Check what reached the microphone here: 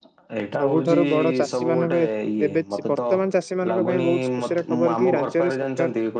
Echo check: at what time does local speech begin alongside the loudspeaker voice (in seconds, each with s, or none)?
0.6 s